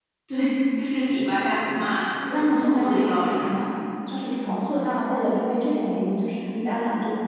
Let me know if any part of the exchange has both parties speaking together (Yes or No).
Yes